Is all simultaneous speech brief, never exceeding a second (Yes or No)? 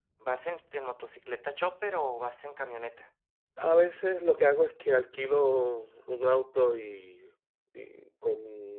Yes